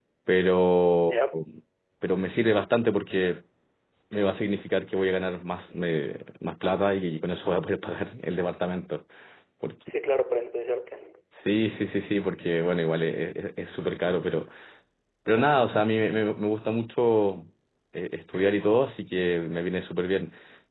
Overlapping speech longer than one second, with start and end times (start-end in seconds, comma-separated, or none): none